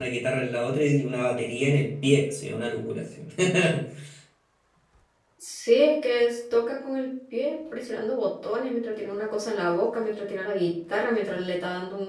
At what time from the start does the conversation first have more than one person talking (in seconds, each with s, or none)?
none